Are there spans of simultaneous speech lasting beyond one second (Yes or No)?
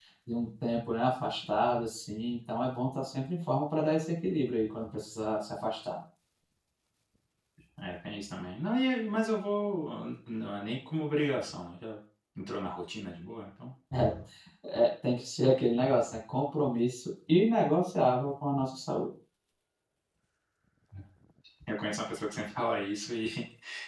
No